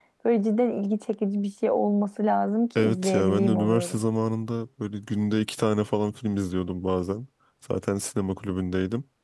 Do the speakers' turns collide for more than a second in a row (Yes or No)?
Yes